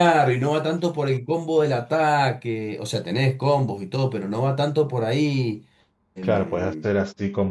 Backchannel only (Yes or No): No